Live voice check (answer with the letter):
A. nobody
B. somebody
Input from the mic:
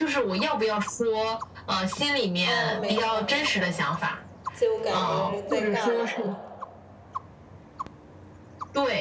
B